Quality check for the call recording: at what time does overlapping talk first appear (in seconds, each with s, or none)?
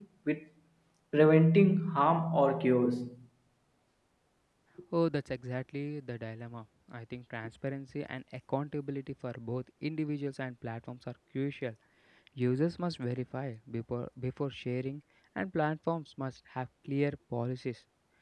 none